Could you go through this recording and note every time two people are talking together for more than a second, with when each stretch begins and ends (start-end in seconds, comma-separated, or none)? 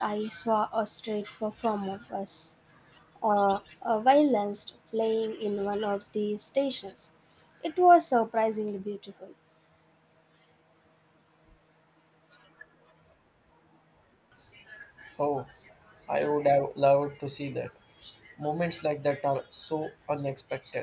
none